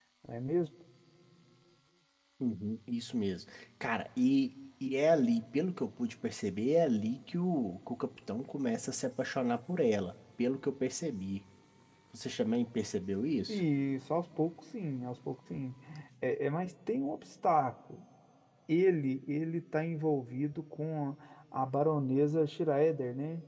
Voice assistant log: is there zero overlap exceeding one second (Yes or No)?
Yes